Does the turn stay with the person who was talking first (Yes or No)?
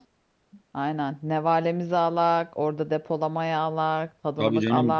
No